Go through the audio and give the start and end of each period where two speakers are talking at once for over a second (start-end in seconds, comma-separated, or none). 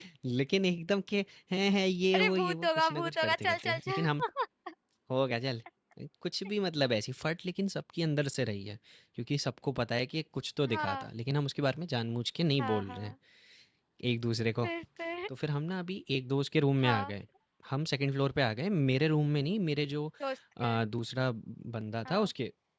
2.4-4.2